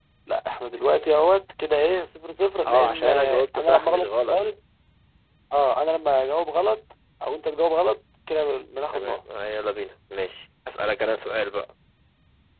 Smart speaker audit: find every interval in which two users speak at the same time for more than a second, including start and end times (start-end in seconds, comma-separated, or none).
2.7-4.4